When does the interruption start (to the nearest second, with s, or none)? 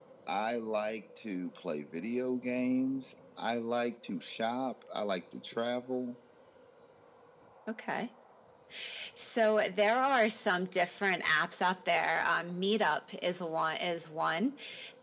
none